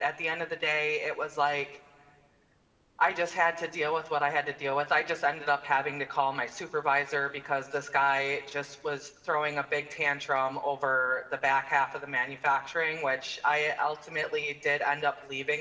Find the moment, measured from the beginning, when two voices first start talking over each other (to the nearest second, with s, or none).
none